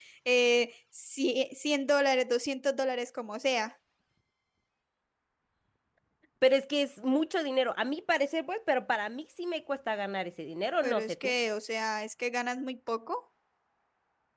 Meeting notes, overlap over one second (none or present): none